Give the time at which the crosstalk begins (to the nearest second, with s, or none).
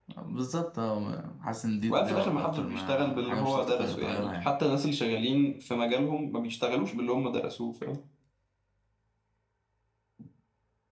2 s